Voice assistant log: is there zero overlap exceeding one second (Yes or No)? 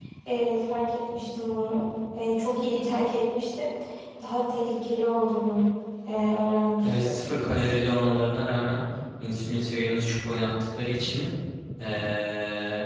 Yes